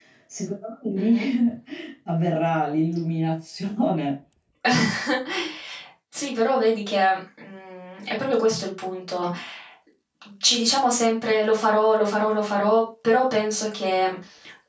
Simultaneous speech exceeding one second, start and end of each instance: none

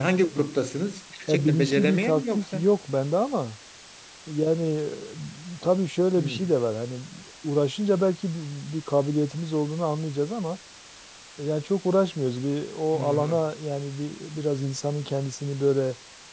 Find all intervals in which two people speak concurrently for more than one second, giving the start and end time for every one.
1.3-2.6

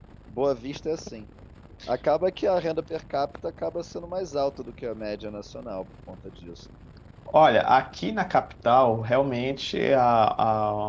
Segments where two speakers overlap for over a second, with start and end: none

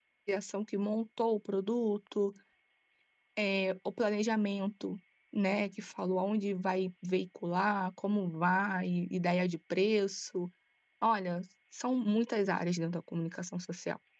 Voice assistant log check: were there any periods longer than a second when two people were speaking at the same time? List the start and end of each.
none

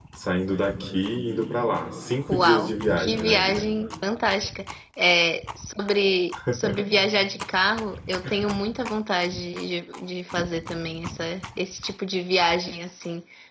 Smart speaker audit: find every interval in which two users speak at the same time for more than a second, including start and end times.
2.3-3.6

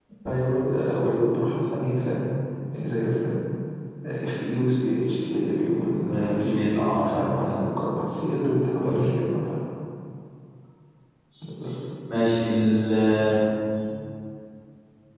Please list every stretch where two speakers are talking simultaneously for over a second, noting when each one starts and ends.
6.0-7.7

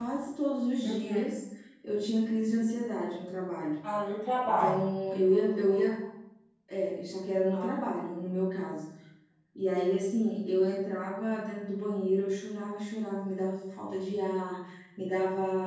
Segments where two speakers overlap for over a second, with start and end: none

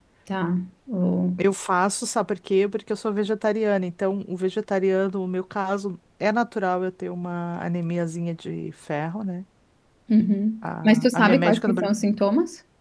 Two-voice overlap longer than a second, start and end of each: 10.6-11.9

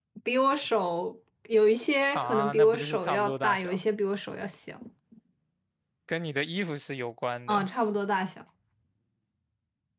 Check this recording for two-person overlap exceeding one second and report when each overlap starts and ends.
2.1-3.8

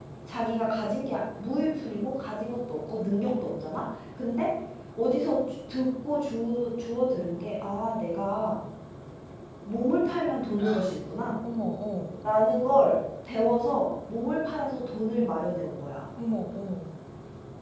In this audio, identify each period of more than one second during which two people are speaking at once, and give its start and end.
none

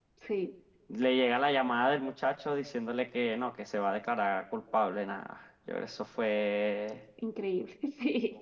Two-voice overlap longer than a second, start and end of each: none

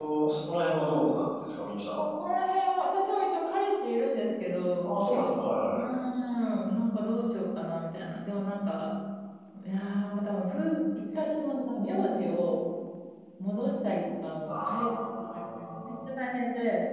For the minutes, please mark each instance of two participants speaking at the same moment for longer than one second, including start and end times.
14.5-15.9

